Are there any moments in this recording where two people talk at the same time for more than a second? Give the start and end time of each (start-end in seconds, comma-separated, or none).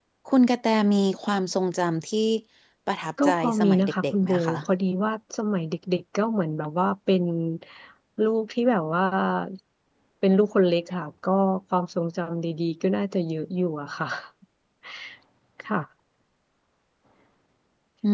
3.2-4.6